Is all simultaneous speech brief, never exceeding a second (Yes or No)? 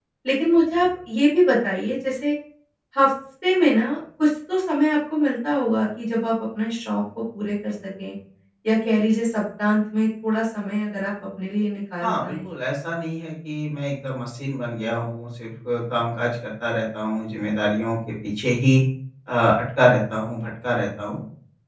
Yes